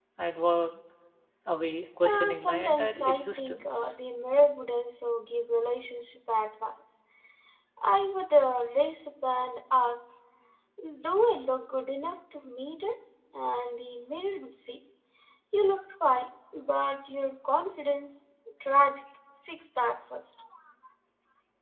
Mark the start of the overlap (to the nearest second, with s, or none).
2 s